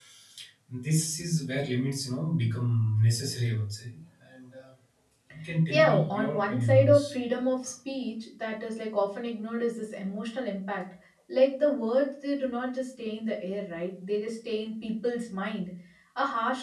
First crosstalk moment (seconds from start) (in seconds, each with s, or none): 5.7 s